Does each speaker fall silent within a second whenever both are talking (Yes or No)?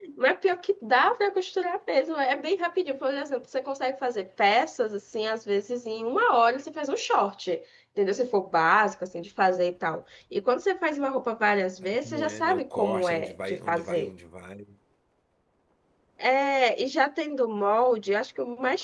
No